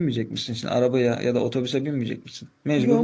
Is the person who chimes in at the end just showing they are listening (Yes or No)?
No